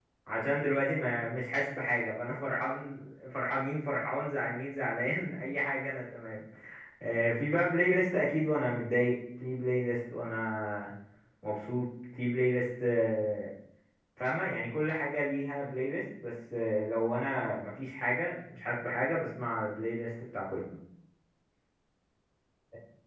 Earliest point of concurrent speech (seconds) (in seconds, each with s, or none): none